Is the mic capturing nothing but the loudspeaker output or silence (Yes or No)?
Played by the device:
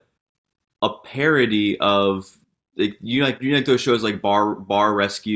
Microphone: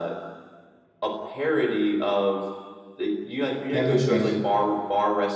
No